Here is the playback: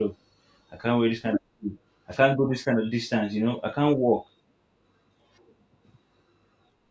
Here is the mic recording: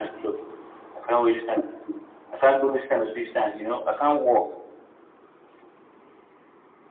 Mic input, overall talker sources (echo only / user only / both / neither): echo only